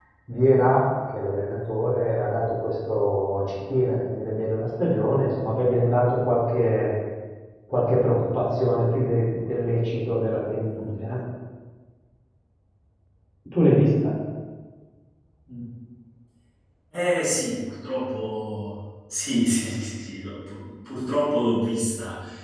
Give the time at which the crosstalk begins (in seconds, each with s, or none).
none